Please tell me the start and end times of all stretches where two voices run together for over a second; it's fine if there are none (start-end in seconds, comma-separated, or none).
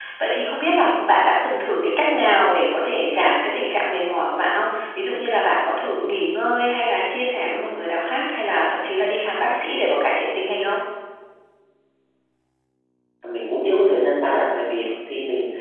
none